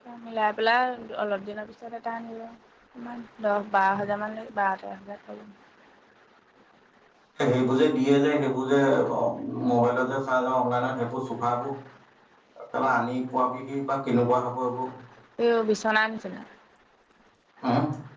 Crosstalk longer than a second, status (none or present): none